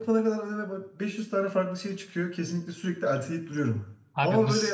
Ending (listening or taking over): listening